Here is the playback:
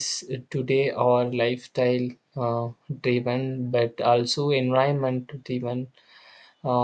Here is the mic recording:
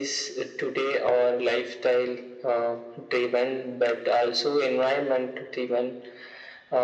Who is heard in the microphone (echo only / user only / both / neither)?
echo only